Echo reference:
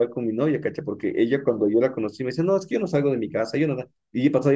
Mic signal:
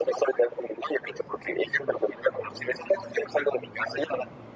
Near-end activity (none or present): none